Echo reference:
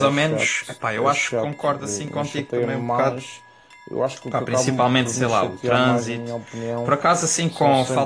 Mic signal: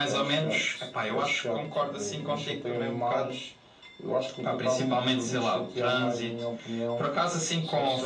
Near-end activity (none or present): none